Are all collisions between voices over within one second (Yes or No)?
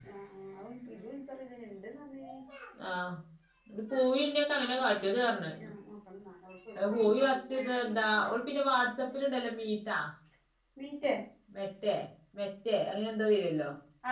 Yes